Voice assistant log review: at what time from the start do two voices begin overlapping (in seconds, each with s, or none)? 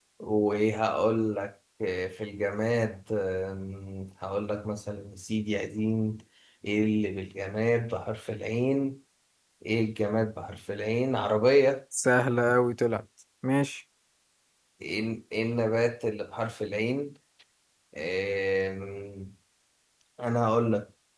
none